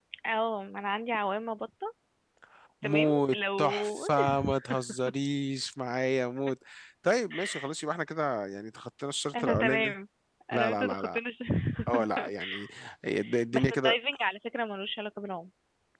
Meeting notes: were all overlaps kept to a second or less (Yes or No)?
No